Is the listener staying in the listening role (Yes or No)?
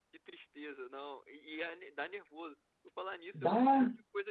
Yes